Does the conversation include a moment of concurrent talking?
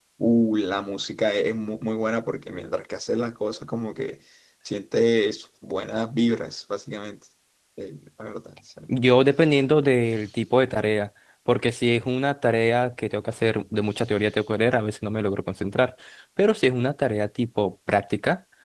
No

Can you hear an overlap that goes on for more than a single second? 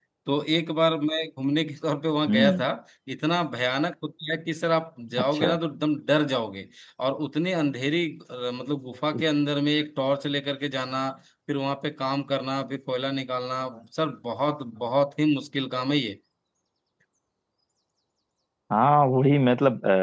No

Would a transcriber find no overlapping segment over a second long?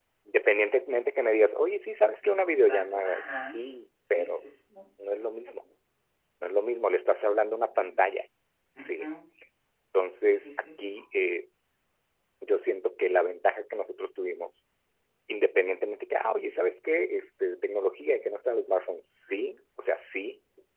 No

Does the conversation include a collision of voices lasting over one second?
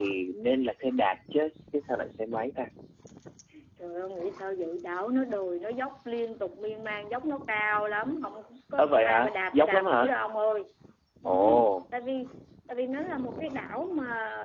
Yes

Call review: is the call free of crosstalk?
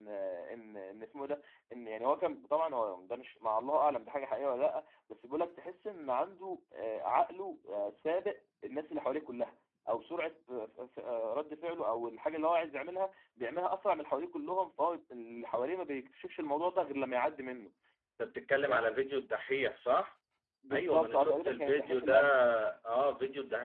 No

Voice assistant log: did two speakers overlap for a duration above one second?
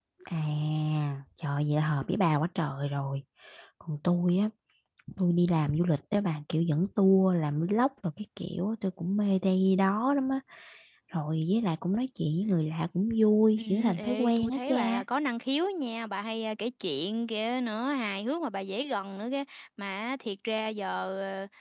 Yes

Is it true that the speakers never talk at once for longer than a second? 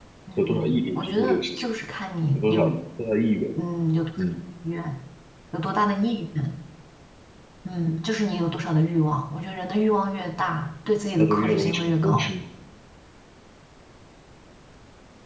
No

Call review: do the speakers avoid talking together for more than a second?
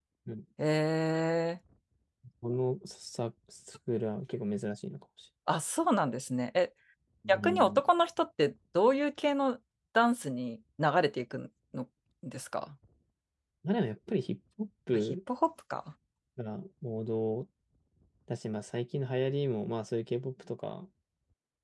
Yes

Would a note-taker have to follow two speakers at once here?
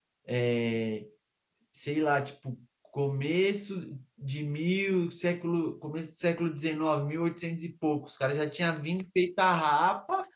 No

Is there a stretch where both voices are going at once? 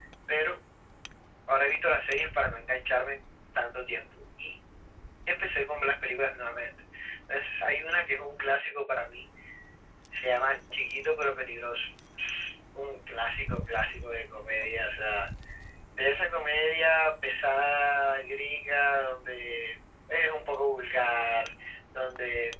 No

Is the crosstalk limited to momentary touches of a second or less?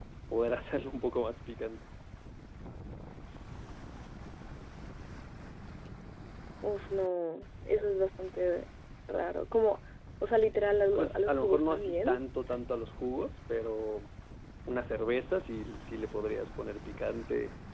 No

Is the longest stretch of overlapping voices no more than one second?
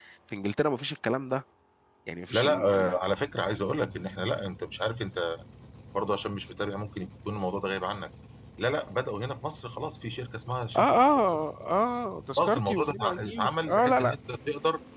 No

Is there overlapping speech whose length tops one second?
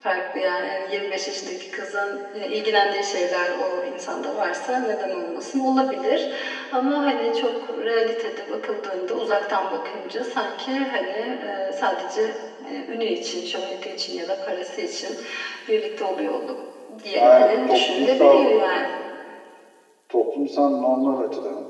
Yes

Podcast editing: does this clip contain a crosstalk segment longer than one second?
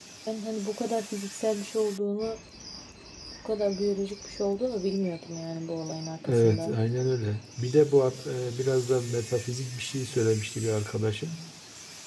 No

